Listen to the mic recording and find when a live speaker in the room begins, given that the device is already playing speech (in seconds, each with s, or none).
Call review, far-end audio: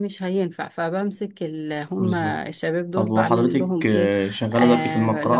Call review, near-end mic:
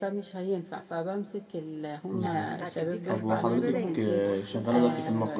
2.2 s